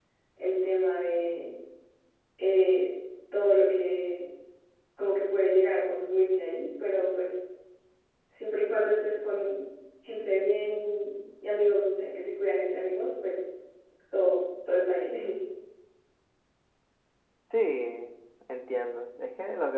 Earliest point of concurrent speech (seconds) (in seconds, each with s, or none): none